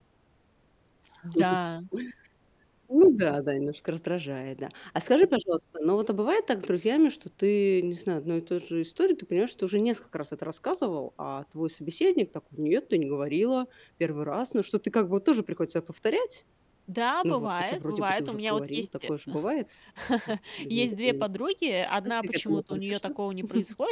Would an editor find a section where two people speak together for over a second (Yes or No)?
Yes